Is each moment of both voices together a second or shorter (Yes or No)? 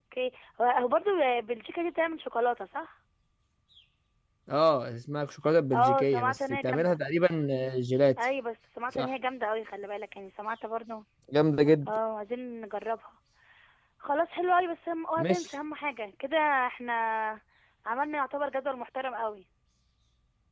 No